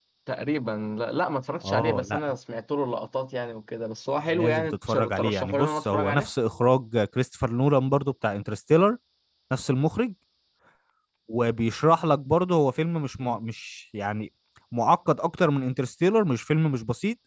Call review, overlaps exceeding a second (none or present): present